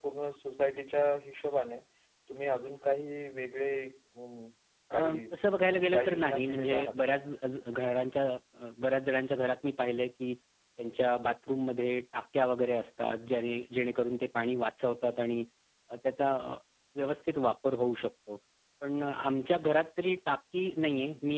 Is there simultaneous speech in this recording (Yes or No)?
Yes